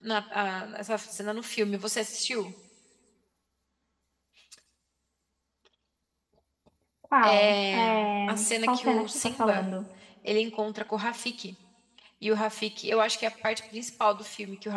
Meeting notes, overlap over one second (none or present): present